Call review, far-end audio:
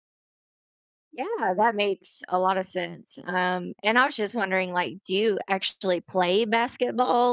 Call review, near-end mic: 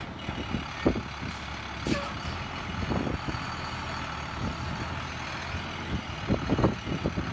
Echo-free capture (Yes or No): Yes